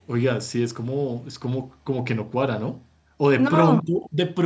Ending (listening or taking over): listening